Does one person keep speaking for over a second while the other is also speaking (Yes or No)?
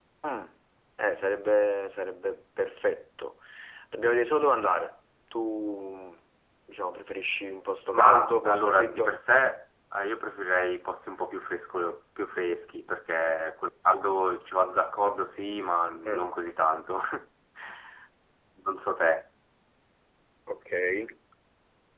Yes